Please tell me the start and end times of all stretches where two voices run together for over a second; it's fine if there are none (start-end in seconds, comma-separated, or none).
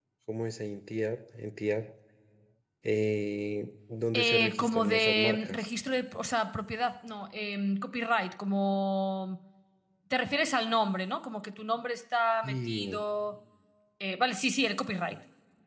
4.1-5.7